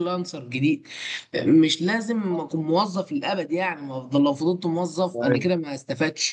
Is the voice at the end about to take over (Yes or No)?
No